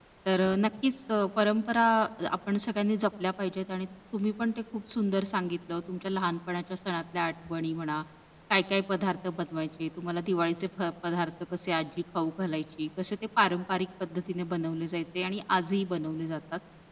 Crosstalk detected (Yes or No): No